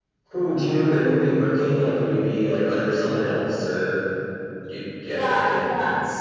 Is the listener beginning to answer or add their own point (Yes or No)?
Yes